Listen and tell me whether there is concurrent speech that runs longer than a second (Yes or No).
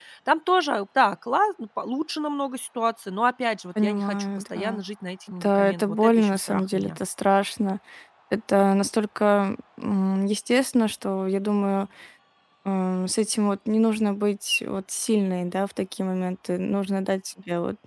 Yes